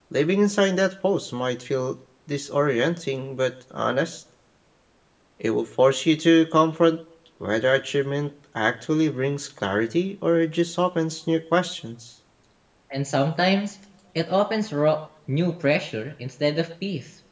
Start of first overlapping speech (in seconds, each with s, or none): none